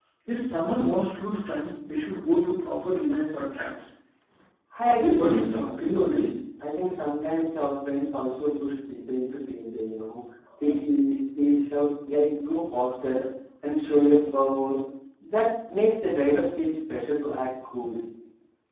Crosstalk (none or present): present